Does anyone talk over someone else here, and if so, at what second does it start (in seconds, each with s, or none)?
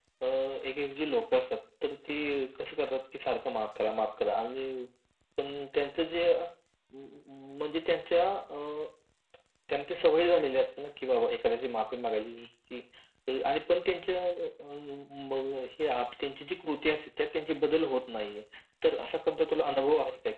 none